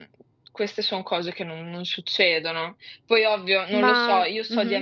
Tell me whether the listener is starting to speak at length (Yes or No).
No